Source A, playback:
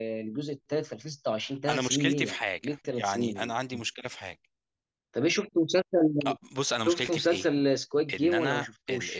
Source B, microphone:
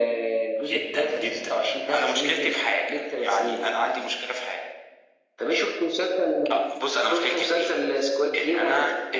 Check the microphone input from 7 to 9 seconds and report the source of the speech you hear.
echo only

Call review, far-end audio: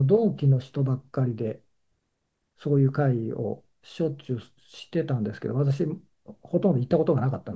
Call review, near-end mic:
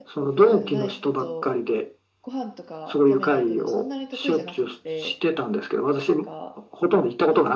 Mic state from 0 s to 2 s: both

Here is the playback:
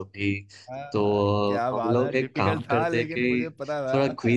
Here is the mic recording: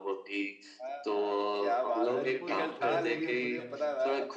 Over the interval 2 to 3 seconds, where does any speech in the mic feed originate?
both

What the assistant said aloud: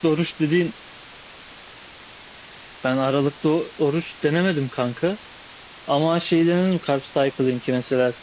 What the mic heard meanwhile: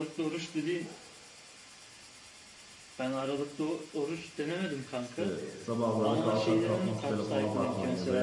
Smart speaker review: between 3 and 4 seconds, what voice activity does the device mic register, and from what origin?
echo only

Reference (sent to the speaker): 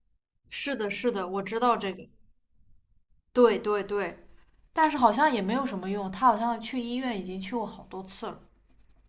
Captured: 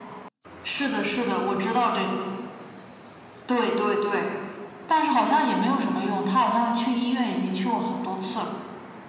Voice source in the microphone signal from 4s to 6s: echo only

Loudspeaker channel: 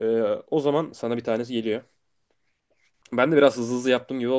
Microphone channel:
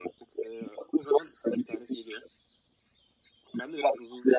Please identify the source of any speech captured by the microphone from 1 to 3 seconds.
echo only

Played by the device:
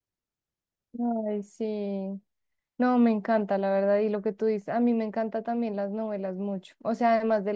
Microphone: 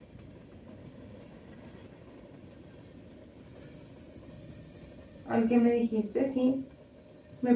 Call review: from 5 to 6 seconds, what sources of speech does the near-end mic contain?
user only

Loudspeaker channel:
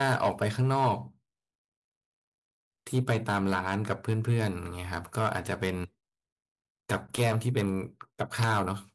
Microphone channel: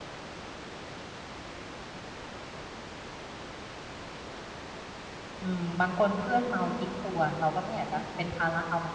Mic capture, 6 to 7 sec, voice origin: user only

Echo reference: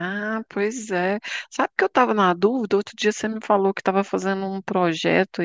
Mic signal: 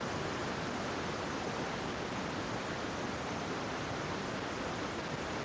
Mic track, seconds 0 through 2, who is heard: neither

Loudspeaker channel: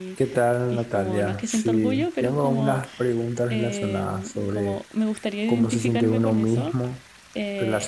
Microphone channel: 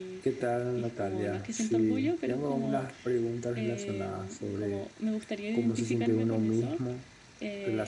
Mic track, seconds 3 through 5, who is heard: echo only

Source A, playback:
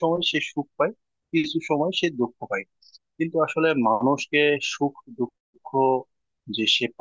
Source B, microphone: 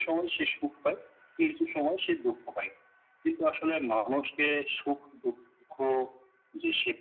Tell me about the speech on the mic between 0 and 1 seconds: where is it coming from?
echo only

